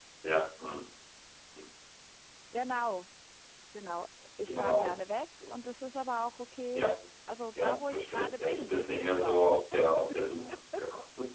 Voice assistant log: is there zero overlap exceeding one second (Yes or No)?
No